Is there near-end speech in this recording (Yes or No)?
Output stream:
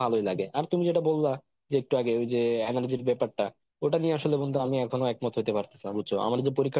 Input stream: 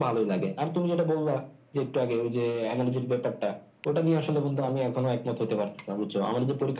No